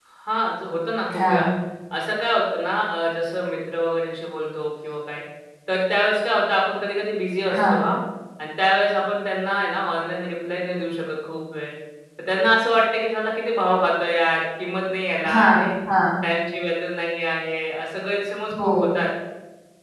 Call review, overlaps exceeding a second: none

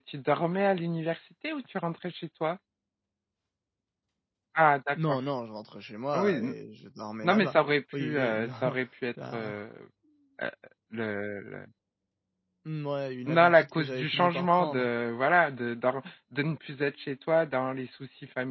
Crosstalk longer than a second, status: present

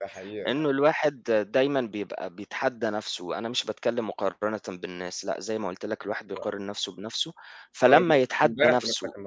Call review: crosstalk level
present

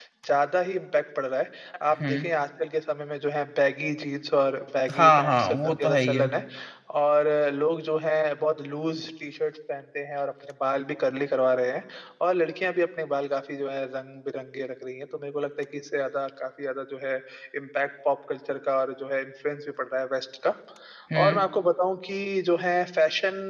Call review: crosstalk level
present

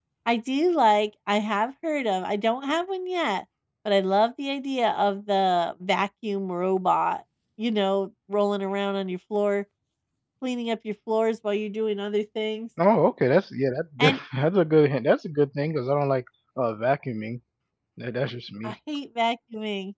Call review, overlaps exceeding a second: none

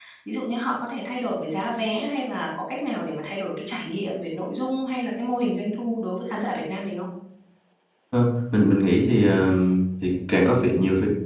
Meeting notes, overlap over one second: none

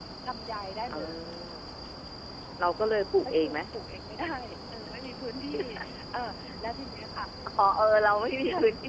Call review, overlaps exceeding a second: none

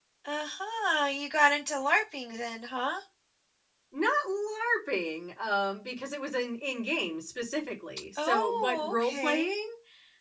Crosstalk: present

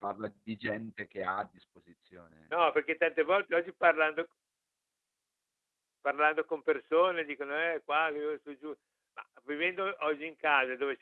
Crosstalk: none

